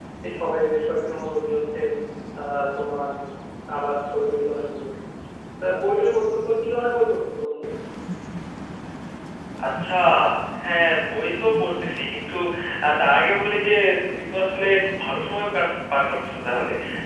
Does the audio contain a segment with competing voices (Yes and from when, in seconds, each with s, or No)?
No